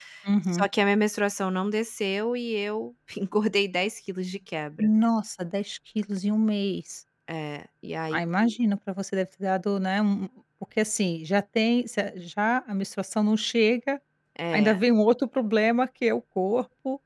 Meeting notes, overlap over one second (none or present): none